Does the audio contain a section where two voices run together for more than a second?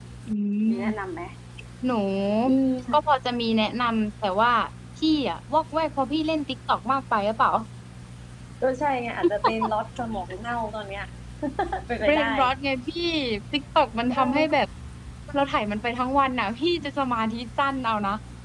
No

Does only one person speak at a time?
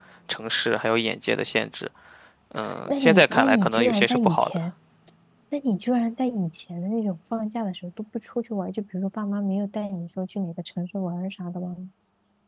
No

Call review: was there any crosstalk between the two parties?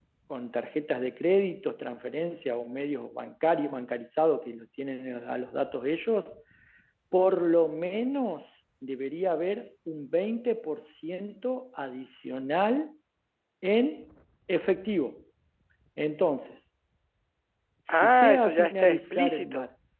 Yes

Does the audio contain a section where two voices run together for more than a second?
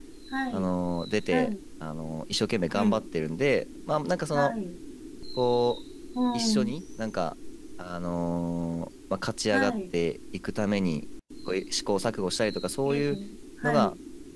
No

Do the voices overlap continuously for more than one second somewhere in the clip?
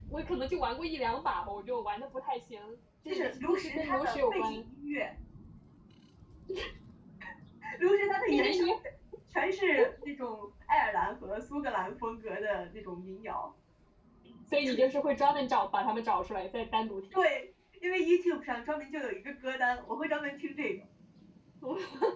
Yes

